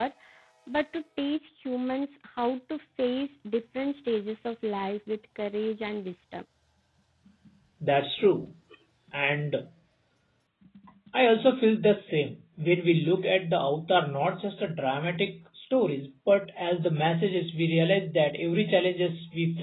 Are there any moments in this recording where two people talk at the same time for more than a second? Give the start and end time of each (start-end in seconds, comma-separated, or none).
none